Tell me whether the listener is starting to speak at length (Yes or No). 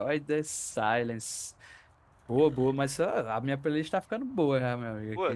Yes